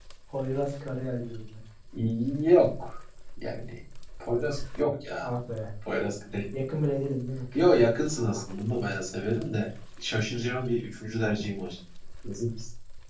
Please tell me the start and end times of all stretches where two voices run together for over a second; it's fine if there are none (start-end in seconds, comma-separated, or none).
none